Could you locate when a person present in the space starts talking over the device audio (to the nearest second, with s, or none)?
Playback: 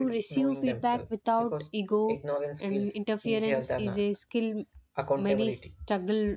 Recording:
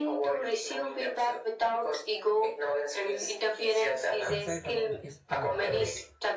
4 s